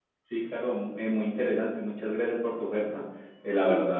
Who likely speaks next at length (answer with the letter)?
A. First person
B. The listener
A